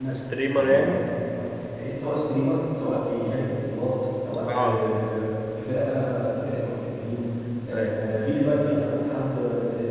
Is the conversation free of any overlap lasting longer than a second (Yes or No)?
Yes